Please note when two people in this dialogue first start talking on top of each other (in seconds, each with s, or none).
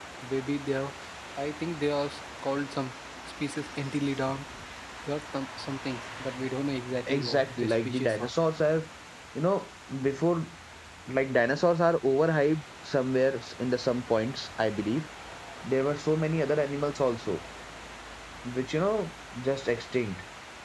7.1 s